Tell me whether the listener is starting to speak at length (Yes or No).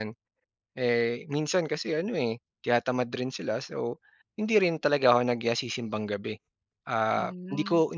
No